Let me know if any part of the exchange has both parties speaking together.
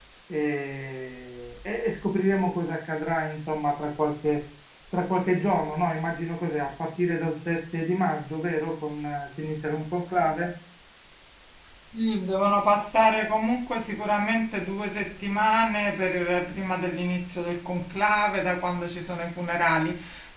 No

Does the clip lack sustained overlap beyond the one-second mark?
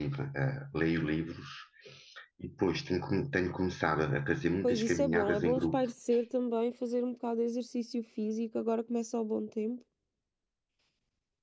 No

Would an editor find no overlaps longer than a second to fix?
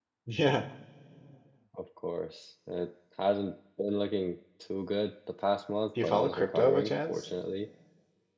No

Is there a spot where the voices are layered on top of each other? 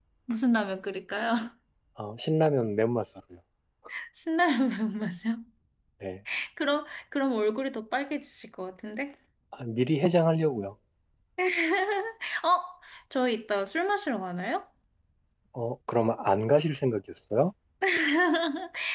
No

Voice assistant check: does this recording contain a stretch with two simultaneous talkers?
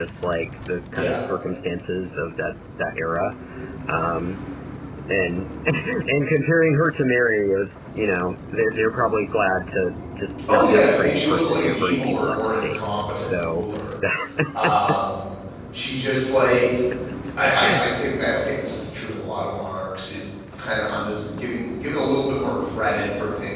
Yes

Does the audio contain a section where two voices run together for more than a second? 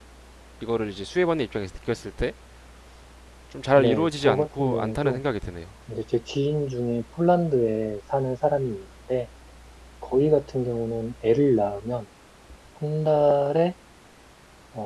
Yes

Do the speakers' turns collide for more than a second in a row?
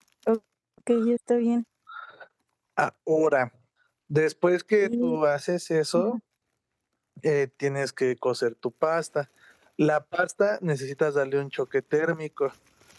No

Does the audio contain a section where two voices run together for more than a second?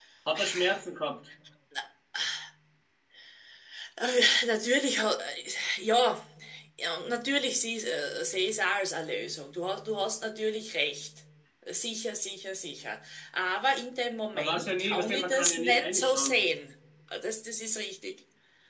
Yes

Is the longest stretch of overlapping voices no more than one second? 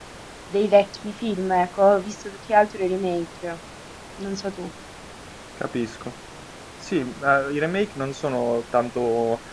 Yes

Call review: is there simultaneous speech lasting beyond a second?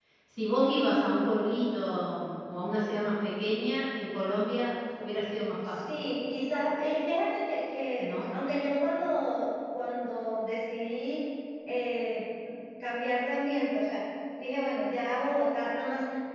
No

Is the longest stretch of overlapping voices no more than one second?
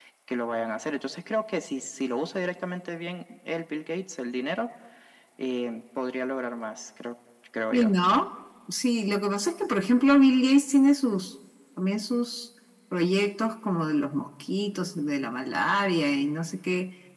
Yes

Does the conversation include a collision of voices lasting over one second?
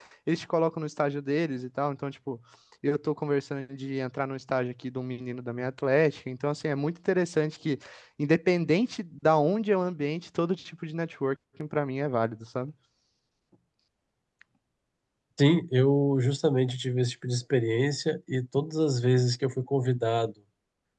No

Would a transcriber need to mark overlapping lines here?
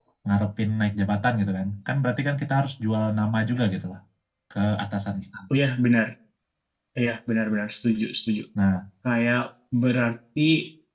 No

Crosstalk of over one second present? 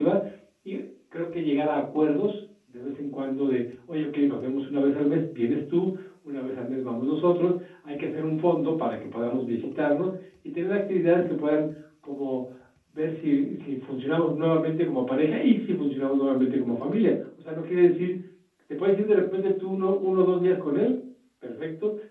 No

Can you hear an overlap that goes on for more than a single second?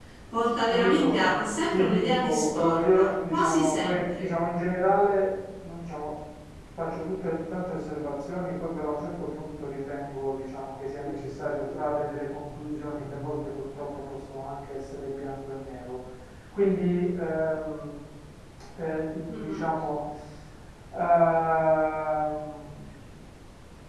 Yes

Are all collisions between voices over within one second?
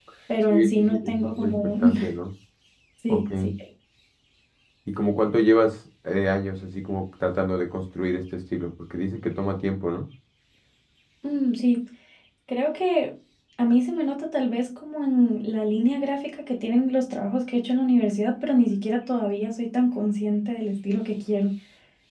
No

